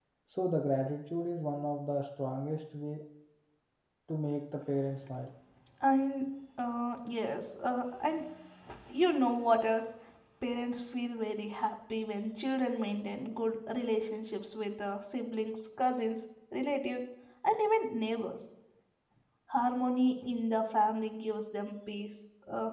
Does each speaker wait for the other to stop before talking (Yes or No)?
Yes